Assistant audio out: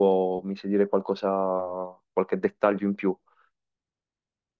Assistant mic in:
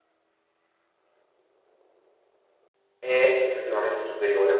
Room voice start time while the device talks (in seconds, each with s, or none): 3.0 s